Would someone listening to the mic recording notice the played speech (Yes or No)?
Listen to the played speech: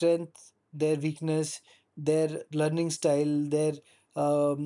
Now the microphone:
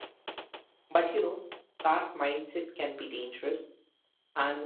No